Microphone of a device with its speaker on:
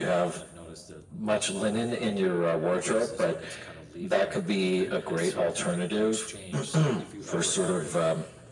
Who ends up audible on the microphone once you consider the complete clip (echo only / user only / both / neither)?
both